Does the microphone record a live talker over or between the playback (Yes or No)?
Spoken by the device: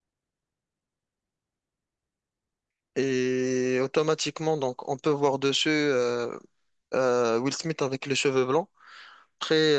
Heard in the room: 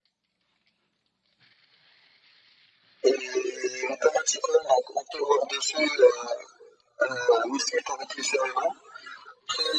No